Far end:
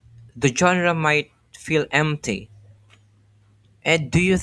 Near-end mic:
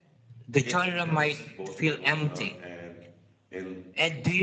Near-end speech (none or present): present